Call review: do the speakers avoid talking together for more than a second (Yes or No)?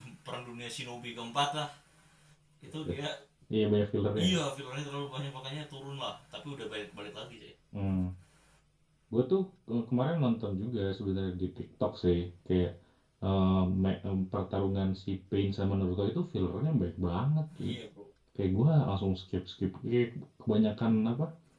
Yes